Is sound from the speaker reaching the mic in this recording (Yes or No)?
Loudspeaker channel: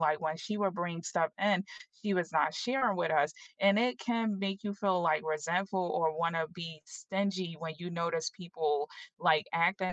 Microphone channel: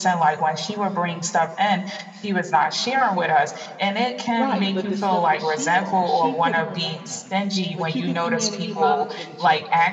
Yes